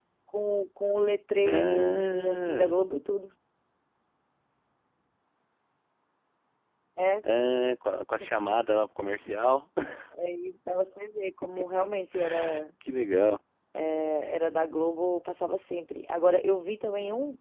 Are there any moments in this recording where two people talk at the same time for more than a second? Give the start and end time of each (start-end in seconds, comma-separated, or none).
1.4-2.8